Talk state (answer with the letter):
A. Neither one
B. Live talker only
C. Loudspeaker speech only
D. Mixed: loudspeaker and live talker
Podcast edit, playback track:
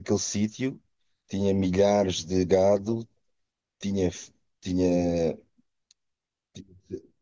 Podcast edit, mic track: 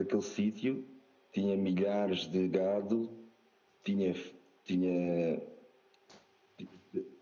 C